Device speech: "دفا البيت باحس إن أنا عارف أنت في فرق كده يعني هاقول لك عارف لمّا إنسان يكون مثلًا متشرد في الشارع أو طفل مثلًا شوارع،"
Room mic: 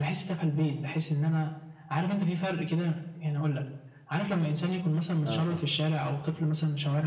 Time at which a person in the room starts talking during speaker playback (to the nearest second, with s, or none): 5 s